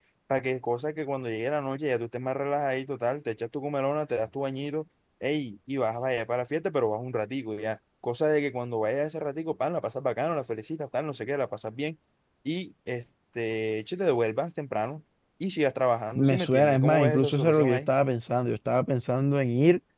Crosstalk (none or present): present